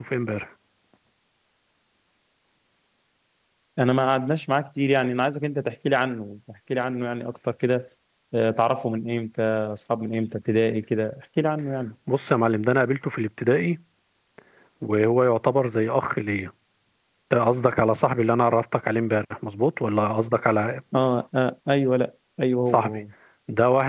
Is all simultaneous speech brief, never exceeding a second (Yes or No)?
Yes